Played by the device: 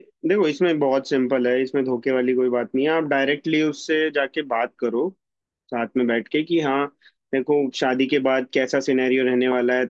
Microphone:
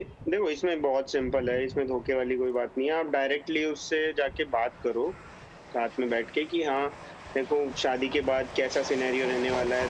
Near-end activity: none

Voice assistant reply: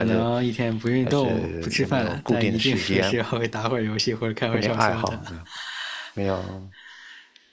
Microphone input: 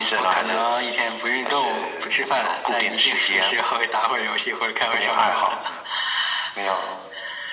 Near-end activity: none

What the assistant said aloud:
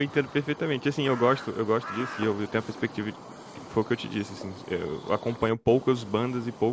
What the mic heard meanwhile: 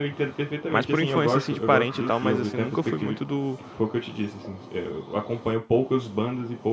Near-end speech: present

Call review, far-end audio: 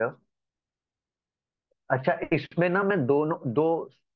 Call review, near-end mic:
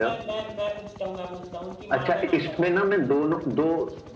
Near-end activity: present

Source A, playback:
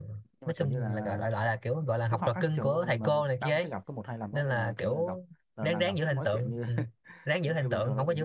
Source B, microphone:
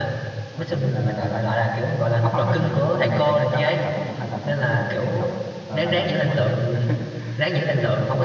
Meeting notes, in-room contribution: none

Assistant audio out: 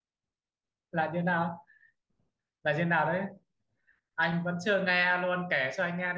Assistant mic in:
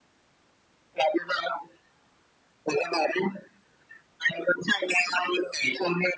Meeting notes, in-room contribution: none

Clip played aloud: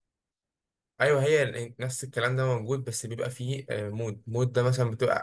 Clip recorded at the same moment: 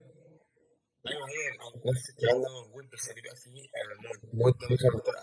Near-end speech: none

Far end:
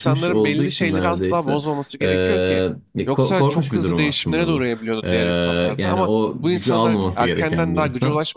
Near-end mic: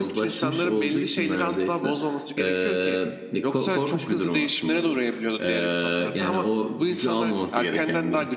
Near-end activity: none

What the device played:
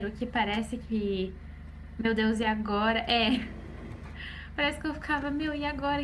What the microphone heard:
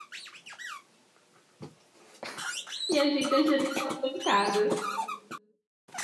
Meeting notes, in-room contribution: present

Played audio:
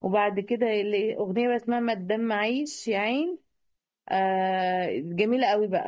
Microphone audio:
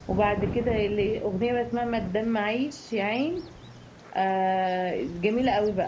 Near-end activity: none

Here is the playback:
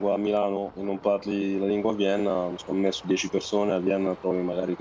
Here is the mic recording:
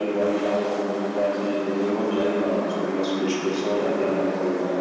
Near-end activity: none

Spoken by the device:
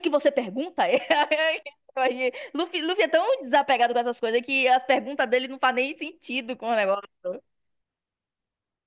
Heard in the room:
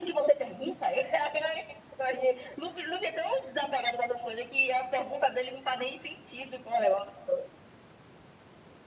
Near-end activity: none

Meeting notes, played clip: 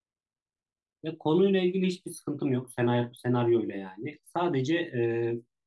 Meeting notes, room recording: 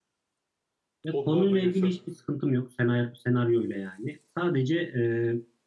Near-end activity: present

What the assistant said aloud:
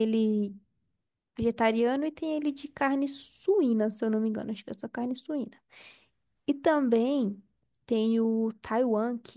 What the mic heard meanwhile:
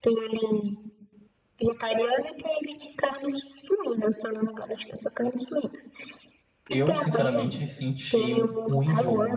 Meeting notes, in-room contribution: present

